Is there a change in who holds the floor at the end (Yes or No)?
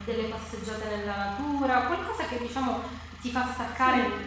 No